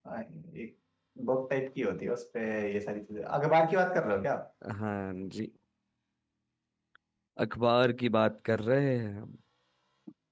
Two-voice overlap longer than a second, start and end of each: none

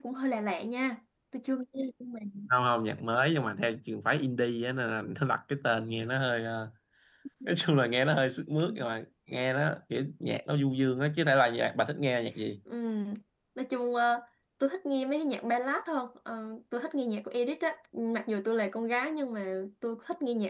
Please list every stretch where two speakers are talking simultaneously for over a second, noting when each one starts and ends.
none

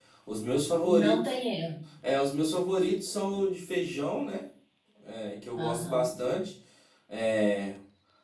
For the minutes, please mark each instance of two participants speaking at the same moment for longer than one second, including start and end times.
none

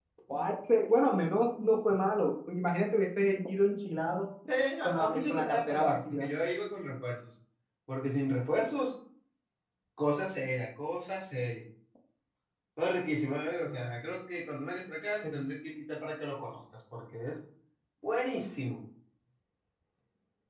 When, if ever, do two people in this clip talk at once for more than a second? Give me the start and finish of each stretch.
4.8-6.3

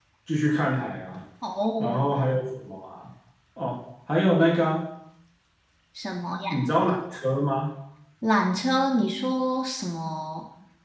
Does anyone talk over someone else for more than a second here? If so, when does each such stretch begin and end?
none

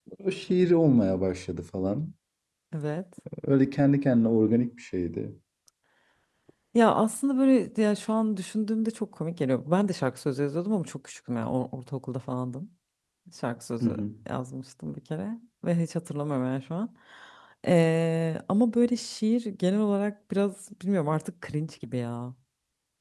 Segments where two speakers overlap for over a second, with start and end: none

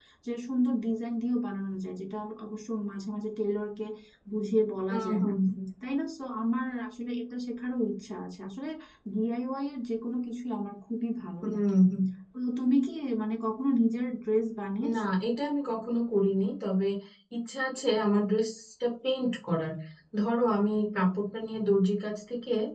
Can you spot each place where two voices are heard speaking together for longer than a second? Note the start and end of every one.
none

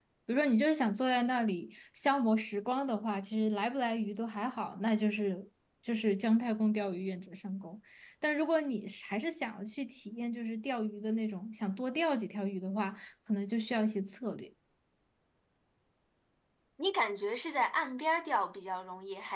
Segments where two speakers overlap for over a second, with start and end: none

